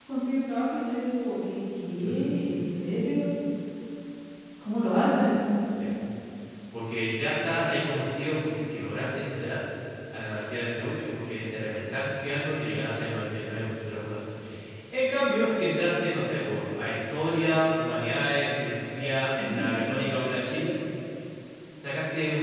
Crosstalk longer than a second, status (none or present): none